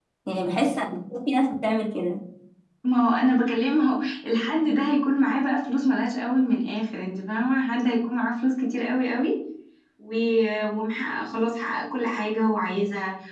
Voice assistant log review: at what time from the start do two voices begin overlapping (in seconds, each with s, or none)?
none